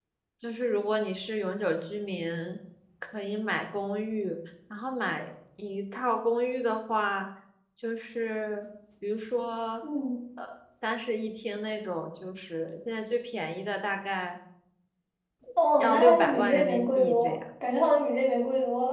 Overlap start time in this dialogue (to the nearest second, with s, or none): 16 s